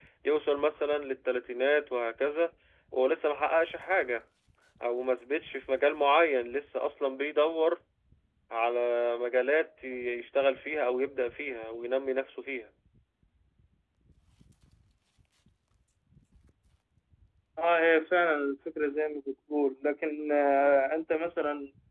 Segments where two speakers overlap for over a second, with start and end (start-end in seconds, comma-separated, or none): none